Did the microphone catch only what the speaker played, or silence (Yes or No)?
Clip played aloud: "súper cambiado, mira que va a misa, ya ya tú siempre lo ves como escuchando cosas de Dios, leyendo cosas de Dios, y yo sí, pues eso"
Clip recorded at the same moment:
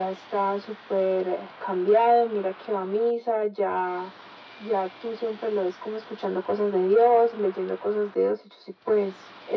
Yes